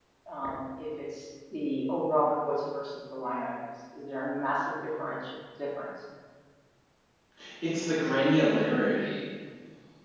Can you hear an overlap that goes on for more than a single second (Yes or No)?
No